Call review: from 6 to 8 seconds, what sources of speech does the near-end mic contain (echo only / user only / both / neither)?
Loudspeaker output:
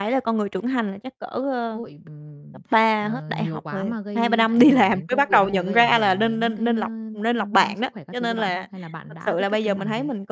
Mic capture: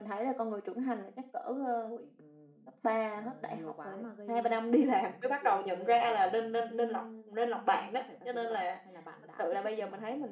echo only